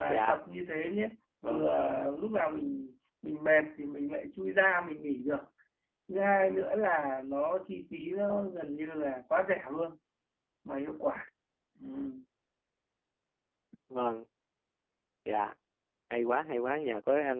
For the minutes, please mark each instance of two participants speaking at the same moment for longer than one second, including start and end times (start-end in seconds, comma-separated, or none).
none